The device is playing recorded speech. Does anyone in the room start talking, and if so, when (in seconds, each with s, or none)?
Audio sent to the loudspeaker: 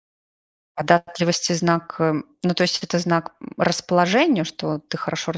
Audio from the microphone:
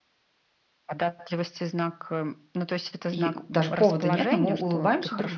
3.0 s